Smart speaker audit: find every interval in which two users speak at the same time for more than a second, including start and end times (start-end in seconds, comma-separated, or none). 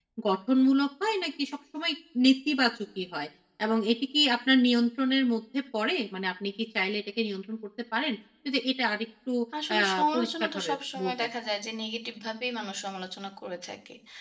9.8-11.3